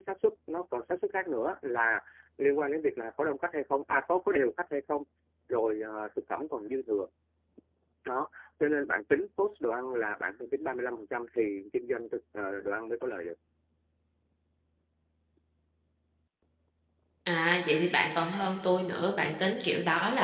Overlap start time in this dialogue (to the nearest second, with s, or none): none